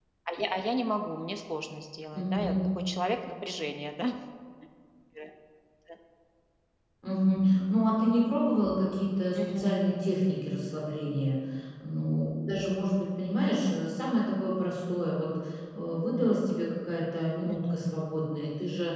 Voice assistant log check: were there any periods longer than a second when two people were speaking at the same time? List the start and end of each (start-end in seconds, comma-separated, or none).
none